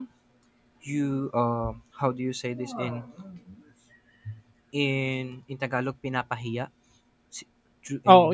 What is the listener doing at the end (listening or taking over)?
taking over